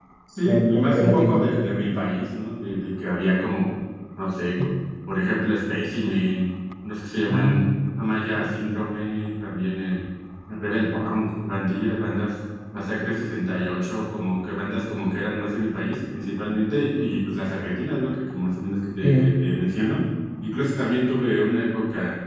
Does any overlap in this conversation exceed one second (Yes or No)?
Yes